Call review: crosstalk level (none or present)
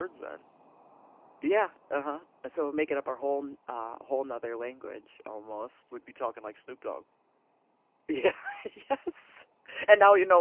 none